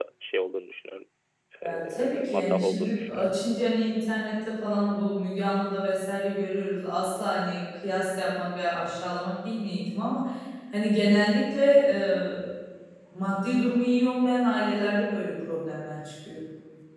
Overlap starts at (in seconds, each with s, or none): 1.6 s